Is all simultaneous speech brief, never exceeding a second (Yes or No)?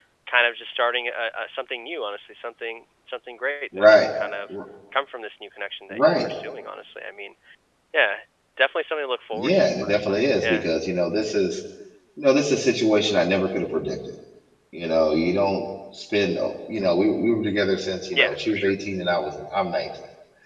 No